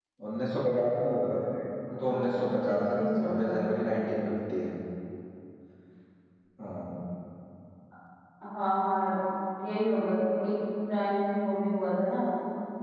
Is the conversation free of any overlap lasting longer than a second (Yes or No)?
No